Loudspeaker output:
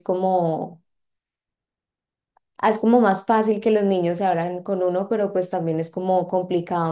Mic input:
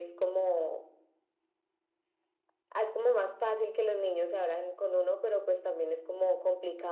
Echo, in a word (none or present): present